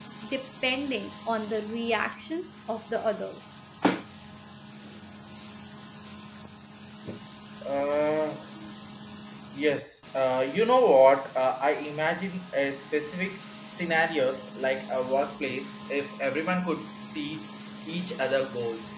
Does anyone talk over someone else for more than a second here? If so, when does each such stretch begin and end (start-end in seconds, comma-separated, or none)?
none